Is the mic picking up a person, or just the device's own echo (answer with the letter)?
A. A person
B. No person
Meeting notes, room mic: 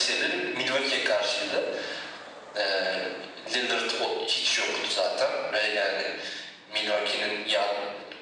B